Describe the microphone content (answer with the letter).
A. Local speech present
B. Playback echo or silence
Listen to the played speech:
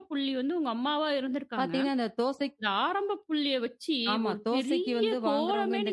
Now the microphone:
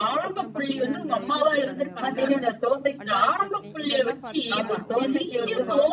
A